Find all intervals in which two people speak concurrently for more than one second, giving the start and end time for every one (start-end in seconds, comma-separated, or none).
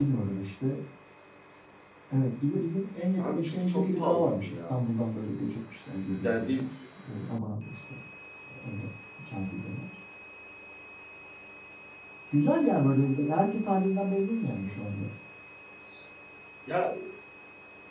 3.2-4.8